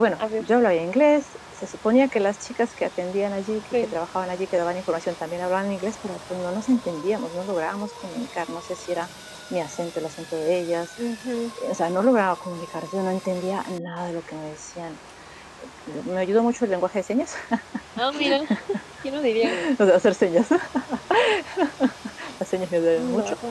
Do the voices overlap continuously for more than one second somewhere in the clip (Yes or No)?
No